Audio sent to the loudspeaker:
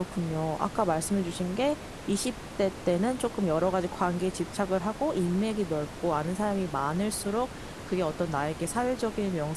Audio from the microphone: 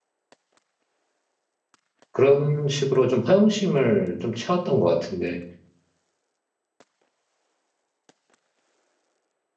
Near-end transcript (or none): 그런 식으로 좀 허영심을 좀 채웠던 것 같은데.